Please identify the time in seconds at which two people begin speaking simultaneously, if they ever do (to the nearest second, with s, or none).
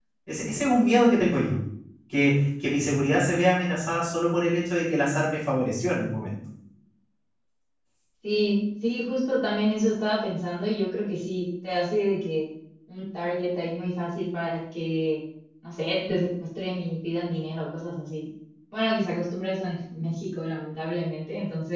none